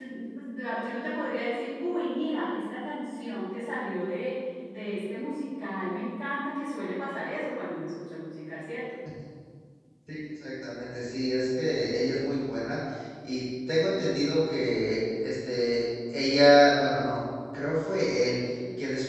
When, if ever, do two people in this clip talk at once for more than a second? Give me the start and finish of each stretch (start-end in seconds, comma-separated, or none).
none